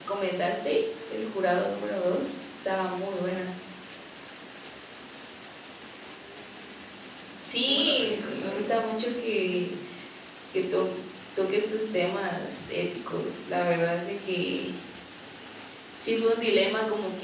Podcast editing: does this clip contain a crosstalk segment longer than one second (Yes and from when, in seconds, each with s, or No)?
Yes, from 7.4 s